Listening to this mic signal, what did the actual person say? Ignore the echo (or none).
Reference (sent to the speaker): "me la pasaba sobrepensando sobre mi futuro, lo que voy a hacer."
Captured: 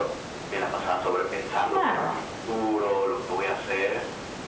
Claro.